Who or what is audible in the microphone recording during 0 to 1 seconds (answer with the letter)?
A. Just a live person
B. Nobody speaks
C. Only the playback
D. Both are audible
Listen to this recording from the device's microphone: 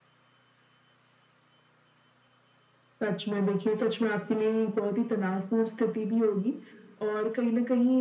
B